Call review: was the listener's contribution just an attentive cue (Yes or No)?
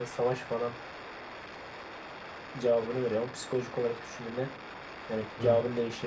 Yes